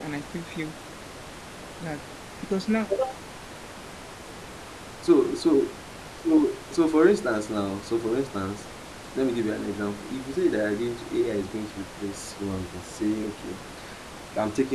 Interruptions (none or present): none